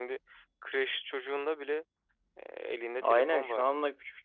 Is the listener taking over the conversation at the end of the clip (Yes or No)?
Yes